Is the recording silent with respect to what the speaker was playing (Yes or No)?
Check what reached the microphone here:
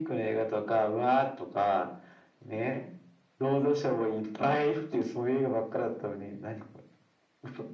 No